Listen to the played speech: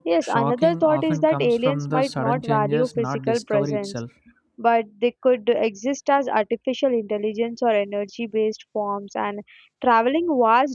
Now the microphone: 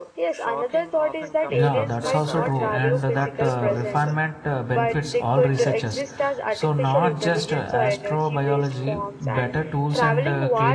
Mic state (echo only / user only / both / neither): both